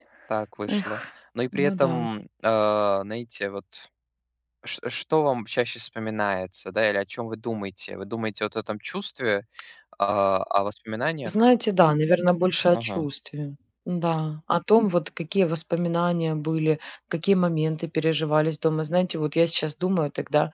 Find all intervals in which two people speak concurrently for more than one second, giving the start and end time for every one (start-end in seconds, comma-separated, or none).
none